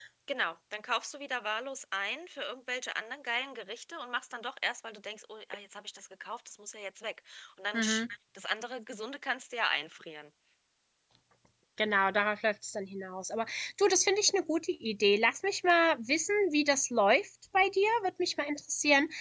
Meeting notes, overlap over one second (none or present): none